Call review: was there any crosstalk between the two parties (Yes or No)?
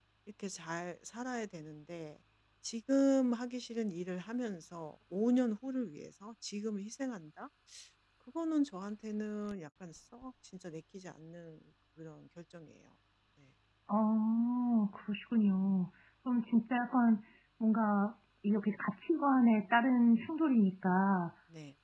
No